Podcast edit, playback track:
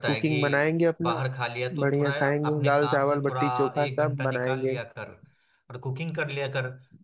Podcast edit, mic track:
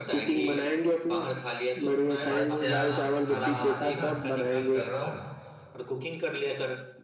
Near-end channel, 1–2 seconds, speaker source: echo only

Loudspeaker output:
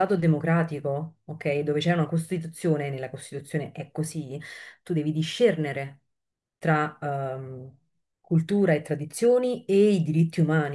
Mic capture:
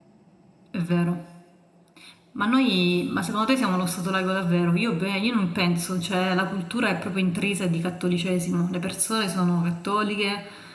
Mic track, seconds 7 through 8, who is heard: user only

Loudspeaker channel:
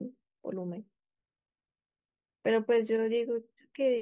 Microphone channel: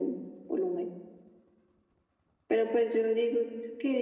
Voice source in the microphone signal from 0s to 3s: echo only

